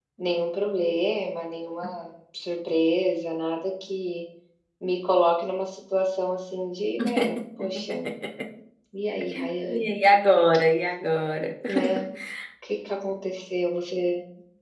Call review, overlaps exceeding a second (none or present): none